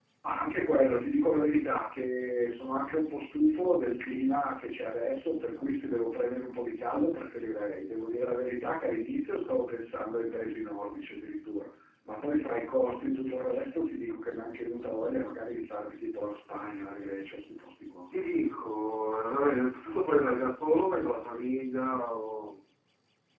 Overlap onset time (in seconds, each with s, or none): none